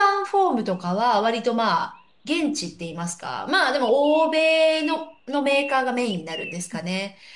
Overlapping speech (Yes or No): No